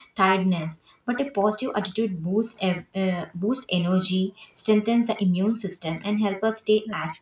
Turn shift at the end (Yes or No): No